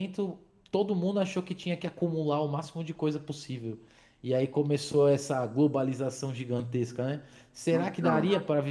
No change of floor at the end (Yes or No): Yes